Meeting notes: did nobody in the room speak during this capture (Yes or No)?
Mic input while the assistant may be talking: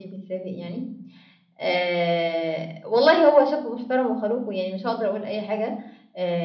Yes